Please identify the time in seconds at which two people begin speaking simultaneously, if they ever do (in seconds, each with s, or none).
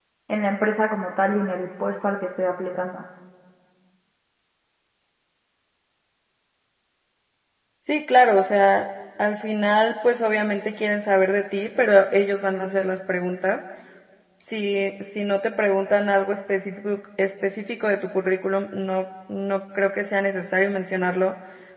none